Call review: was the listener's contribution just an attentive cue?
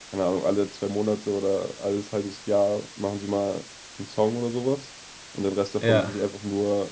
Yes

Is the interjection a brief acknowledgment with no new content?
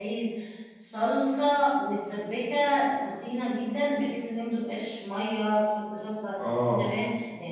Yes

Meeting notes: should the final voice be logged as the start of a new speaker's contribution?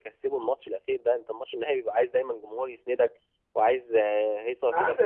Yes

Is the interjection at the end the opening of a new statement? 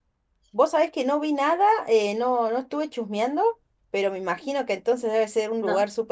No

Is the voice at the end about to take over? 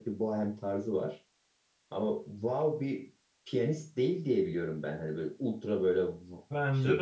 Yes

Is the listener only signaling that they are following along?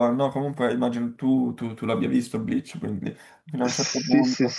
No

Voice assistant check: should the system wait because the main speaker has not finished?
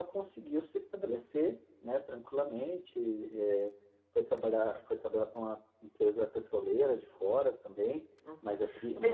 No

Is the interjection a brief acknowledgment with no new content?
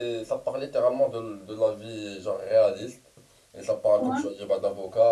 Yes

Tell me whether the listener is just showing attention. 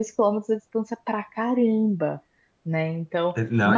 No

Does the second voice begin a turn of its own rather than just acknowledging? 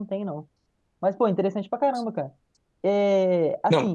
No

